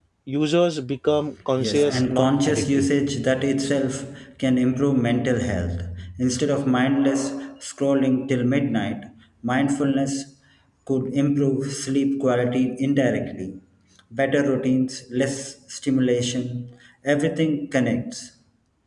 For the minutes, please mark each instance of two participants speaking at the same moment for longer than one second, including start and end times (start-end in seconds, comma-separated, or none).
1.6-2.9